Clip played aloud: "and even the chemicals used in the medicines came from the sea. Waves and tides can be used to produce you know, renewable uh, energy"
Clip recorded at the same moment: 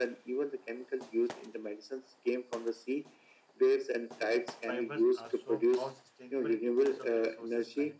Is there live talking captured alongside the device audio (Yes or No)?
Yes